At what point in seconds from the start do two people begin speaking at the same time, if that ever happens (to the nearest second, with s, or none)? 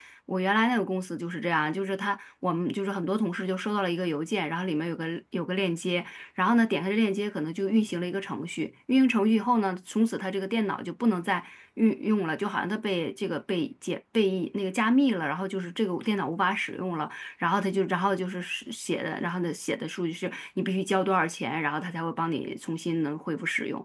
none